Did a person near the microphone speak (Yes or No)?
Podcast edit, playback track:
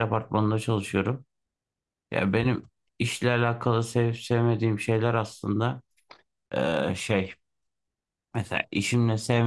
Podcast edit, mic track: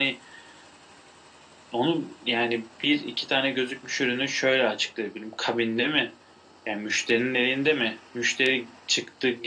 Yes